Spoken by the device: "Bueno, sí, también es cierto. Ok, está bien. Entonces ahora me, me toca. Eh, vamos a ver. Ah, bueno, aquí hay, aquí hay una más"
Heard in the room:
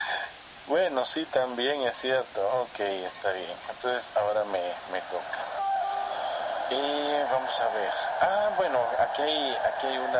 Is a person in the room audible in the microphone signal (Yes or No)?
No